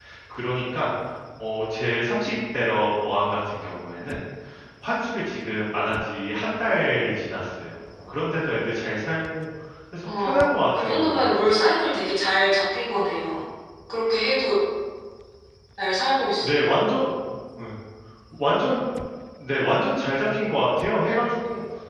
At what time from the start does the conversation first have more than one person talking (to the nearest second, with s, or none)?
10 s